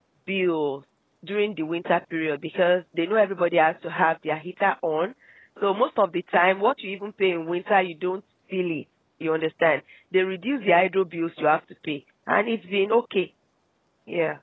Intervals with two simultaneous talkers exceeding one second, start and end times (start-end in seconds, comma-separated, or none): none